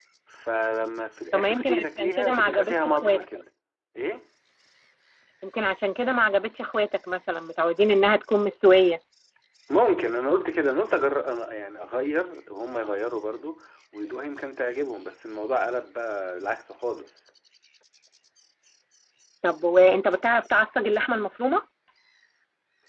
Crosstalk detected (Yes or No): Yes